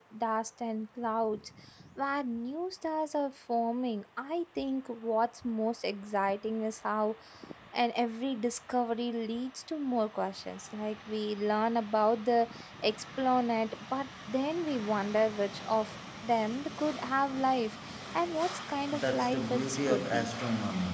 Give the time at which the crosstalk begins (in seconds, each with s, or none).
18.9 s